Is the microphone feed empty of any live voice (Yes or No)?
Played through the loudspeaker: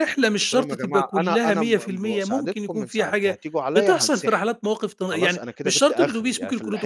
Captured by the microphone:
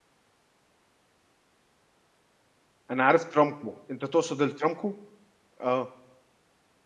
No